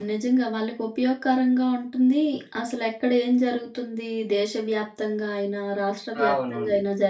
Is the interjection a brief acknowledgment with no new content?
Yes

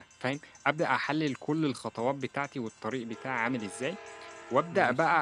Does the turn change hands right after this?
No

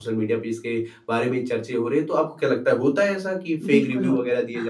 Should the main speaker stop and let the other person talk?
Yes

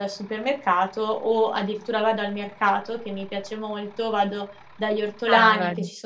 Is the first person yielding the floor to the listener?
No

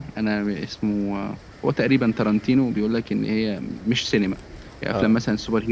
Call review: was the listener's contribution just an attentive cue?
Yes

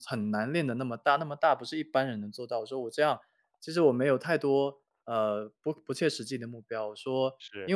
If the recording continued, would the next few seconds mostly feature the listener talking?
No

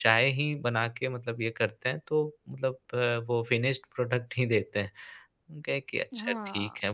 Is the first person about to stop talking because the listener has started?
Yes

